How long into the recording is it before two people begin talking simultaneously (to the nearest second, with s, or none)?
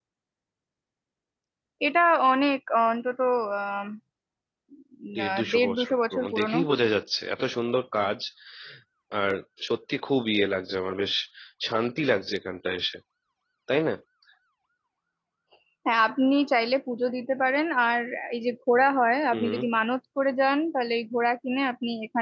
5 s